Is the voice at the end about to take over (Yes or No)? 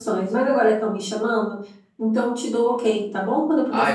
Yes